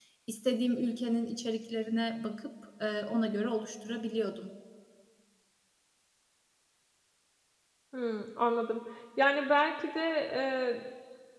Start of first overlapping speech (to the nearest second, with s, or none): none